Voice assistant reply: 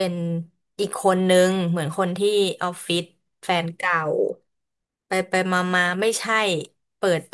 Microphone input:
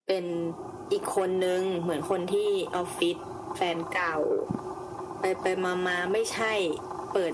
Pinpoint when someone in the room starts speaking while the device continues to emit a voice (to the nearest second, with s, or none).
none